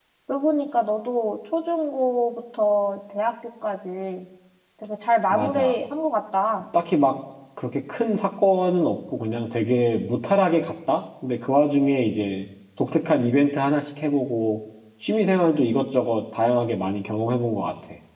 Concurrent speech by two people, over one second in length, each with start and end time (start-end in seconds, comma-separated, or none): none